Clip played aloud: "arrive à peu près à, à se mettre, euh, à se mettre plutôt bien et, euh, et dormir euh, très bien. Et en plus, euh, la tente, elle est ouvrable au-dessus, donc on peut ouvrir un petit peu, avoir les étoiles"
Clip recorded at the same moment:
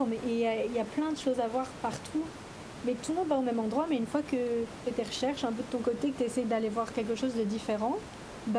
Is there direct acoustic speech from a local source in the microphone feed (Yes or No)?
Yes